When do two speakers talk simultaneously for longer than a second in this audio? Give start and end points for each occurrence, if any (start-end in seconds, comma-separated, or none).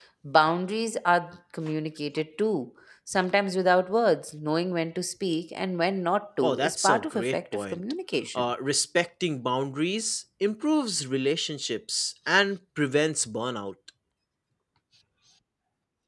6.4-7.8